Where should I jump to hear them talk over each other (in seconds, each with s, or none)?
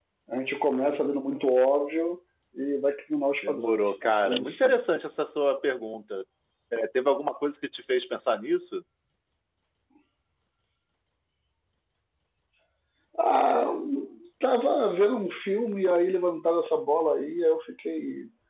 3.4 s